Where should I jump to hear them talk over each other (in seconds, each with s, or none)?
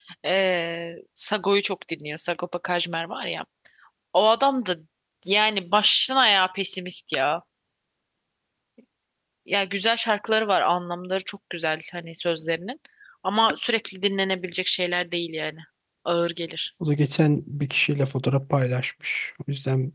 none